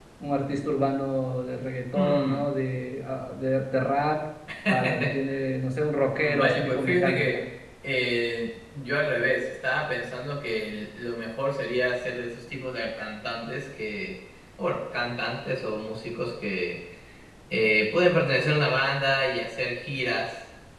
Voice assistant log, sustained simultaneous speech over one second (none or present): present